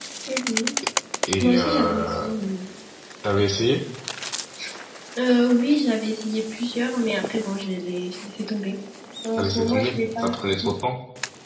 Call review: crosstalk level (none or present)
present